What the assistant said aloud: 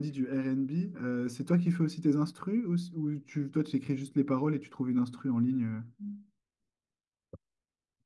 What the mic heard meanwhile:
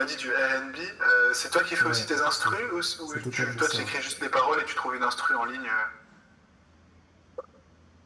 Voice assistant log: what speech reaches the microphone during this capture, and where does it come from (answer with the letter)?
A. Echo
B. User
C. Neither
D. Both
D